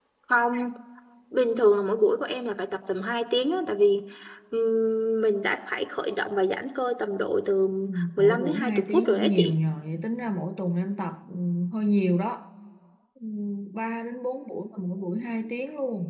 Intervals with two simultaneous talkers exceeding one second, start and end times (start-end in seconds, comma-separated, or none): 8.2-9.5